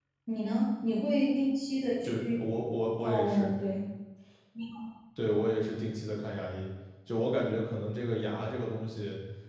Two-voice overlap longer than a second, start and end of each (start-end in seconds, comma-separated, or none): none